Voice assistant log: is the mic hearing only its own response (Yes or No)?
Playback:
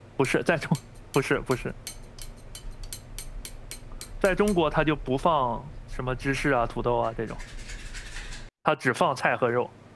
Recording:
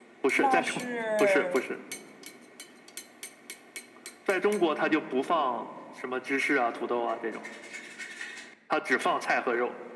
No